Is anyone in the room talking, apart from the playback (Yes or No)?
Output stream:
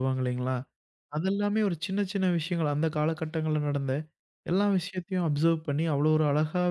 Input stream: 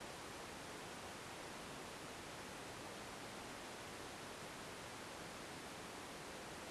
No